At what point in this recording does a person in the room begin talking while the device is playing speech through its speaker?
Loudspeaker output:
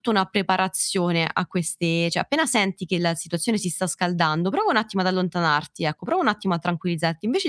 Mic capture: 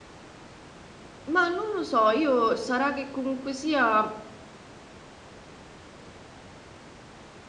1.3 s

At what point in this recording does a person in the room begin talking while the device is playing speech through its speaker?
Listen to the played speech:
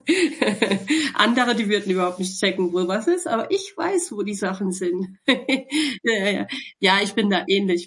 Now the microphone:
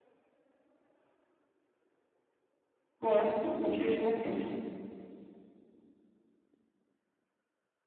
3.0 s

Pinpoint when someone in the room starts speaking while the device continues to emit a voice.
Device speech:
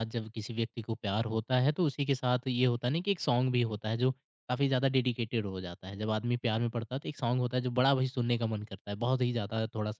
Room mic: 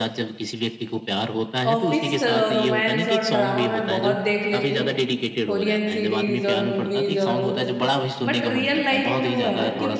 1.7 s

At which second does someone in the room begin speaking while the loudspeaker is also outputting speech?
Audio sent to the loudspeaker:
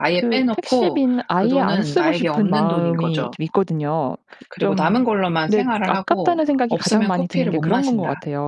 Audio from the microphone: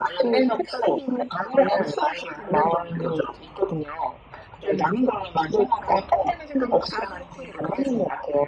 none

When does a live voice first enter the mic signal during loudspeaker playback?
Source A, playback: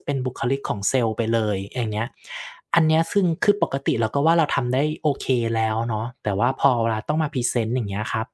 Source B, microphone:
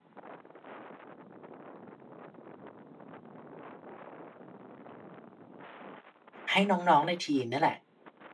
6.5 s

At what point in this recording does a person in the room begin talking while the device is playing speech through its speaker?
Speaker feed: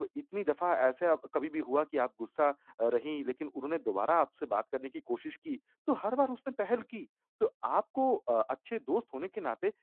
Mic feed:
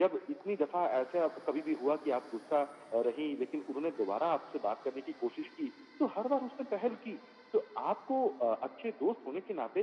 none

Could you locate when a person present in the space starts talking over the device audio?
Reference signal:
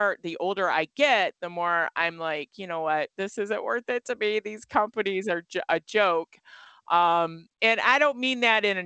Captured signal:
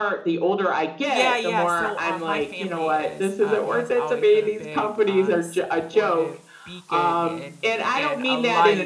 1.0 s

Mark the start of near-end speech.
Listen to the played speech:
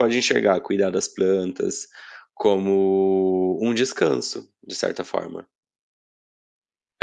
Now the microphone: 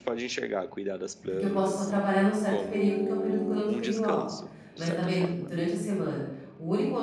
1.3 s

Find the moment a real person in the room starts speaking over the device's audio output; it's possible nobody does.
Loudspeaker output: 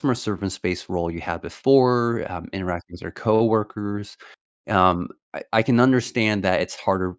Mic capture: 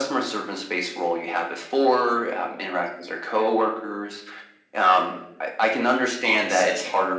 6.2 s

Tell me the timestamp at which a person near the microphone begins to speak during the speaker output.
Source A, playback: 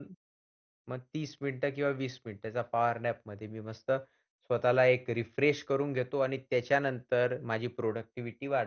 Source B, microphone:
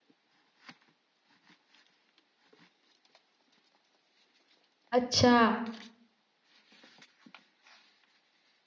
5.0 s

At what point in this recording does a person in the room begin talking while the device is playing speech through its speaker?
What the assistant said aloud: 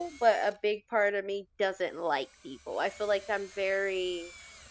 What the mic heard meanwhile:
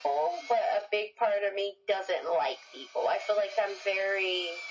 none

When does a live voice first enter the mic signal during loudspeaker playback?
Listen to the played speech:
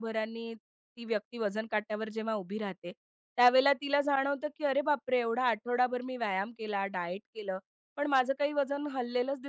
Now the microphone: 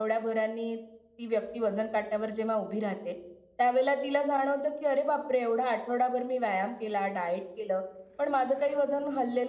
none

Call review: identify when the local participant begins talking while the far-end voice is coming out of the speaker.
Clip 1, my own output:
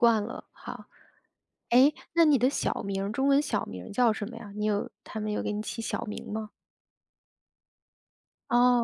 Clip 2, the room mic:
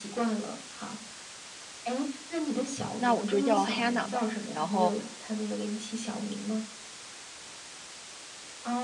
3.0 s

